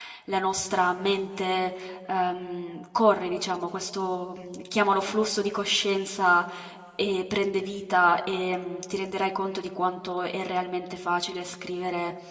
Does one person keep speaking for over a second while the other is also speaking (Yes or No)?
No